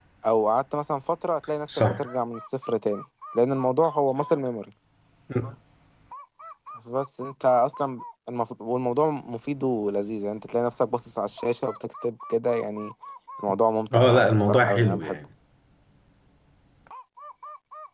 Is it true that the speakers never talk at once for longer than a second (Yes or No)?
No